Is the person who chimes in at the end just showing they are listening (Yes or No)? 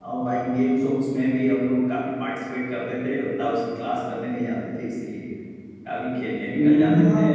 No